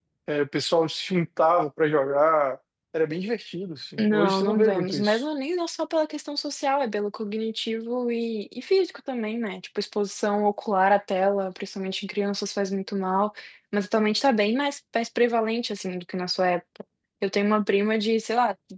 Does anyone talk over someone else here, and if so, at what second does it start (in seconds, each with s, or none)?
4.0 s